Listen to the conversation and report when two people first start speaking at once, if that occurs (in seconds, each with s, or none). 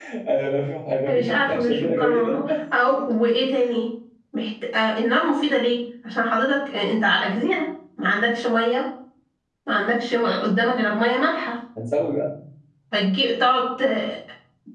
1.1 s